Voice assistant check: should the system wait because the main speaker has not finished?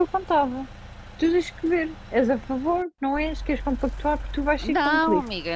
No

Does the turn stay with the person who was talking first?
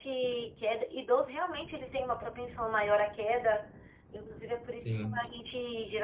Yes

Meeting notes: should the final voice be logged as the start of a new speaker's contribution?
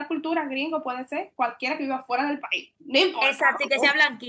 Yes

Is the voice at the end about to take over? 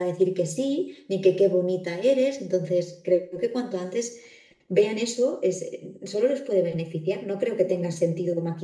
No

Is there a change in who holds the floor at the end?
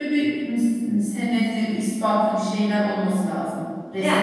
Yes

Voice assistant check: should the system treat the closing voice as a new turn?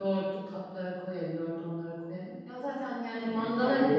Yes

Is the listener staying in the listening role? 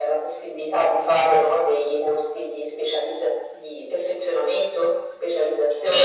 No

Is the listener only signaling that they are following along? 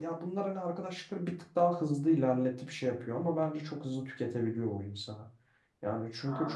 Yes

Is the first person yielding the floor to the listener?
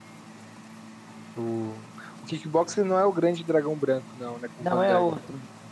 Yes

